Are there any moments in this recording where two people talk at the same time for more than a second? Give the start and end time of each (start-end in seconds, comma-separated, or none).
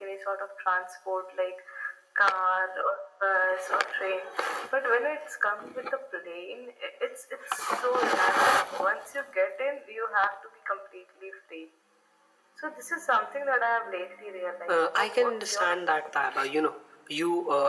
14.7-16.5